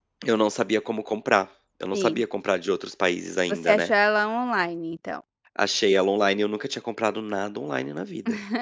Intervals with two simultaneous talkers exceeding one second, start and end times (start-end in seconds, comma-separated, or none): none